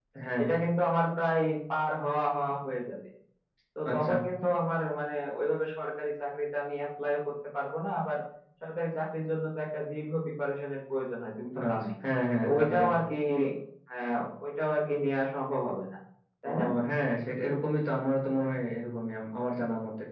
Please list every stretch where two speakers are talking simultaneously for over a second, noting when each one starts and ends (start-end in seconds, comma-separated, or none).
none